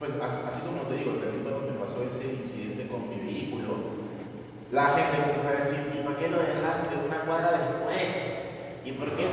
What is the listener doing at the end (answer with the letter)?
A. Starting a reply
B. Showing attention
B